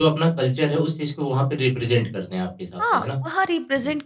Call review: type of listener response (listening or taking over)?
taking over